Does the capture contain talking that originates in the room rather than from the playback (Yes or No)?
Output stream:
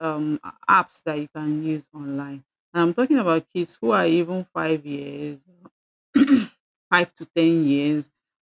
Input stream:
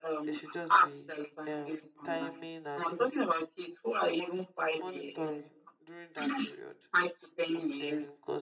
Yes